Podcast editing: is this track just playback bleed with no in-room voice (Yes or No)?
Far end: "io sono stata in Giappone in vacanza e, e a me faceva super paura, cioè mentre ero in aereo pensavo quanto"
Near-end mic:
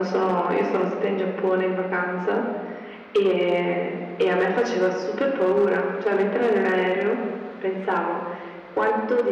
Yes